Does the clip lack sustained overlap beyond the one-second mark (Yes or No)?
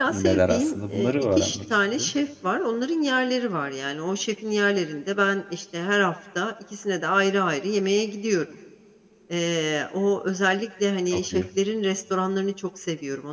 No